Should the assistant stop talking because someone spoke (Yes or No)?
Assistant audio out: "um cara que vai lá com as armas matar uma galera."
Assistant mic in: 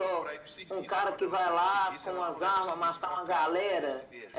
Yes